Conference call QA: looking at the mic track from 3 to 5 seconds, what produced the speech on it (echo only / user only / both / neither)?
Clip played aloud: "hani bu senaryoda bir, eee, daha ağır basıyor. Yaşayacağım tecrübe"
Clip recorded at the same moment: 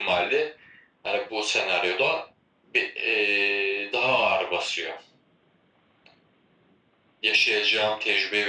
echo only